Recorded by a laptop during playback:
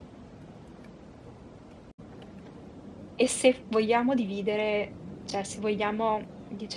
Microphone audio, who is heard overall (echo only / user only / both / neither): user only